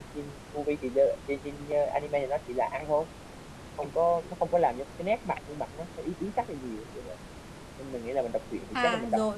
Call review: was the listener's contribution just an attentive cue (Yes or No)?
No